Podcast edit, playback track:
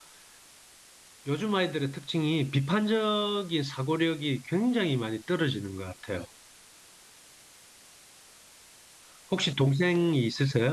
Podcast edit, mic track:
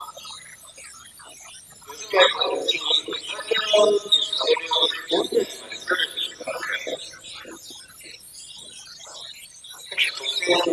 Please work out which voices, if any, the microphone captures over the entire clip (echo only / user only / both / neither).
echo only